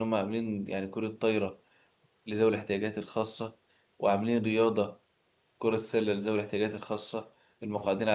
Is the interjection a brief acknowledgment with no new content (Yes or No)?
Yes